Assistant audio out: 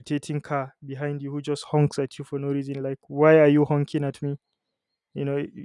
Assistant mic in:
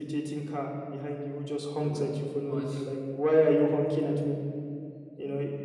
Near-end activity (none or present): present